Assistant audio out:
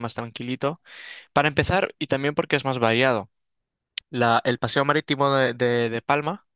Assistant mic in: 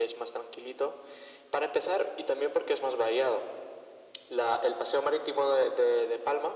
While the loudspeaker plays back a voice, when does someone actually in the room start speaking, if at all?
none

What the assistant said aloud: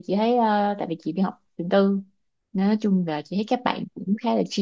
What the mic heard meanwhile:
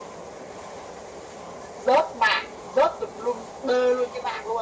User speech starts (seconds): 1.7 s

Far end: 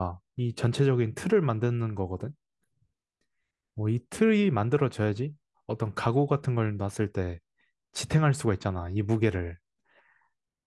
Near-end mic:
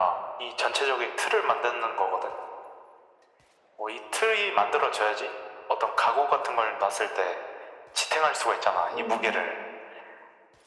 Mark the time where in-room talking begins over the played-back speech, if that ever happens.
8.9 s

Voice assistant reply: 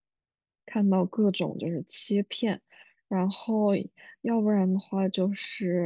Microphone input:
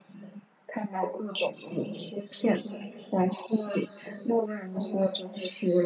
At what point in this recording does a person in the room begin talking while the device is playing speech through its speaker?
none

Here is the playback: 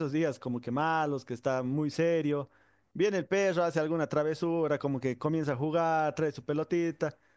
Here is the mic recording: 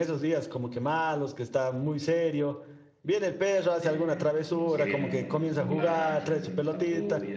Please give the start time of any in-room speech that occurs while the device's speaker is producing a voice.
3.8 s

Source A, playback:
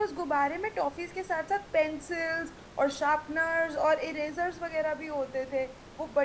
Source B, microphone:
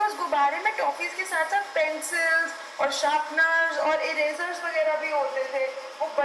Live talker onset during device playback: none

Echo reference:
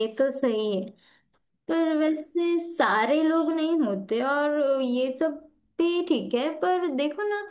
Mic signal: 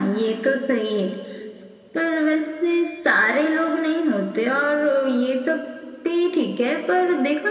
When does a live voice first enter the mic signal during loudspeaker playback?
none

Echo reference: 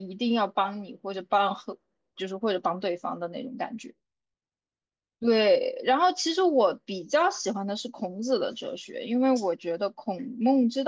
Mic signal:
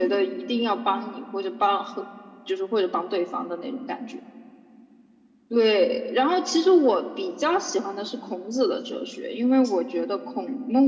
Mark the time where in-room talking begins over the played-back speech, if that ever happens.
none

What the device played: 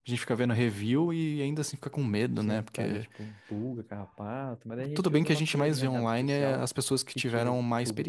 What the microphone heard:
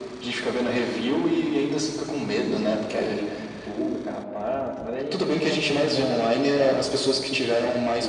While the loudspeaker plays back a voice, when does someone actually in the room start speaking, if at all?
none

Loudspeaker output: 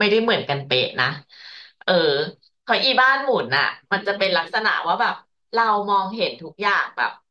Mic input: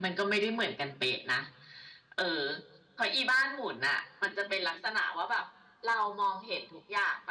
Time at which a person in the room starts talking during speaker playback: none

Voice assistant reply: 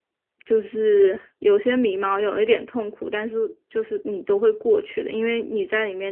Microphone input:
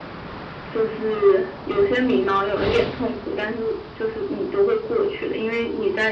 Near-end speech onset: none

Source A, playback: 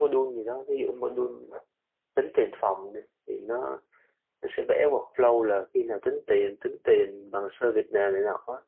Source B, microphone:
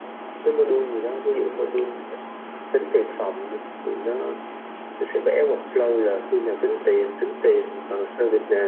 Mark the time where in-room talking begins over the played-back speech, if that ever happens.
none

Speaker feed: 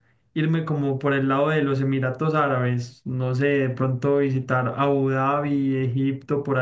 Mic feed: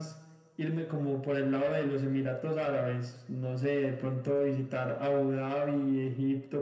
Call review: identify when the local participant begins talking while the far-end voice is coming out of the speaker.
none

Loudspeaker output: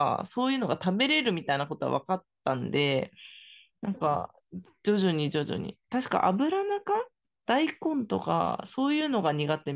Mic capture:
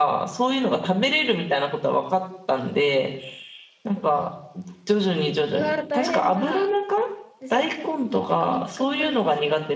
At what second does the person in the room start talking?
5.5 s

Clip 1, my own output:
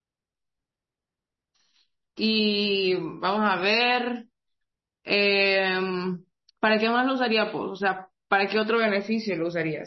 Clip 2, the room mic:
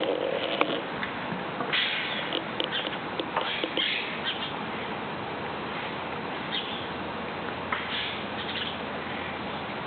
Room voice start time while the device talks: none

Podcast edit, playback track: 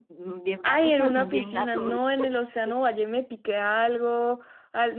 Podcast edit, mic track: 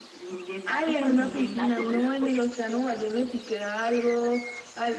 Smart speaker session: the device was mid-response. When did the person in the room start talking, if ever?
none

